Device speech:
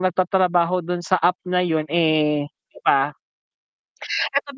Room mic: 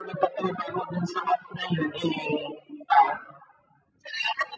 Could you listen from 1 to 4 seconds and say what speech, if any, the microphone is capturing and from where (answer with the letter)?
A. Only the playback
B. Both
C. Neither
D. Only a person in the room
A